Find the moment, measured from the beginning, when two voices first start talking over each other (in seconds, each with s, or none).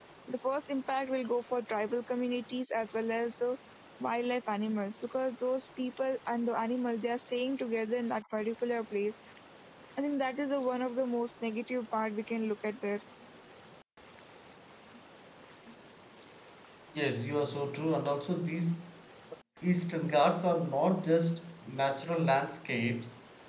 none